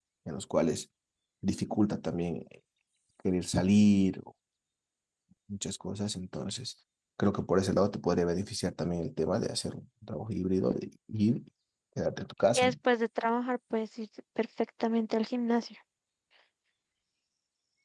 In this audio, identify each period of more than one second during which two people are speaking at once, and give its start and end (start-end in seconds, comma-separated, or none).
none